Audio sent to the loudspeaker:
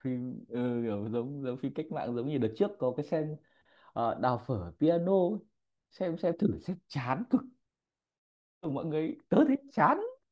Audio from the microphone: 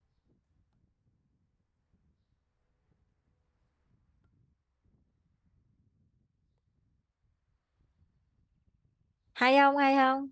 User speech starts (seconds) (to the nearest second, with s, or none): 9 s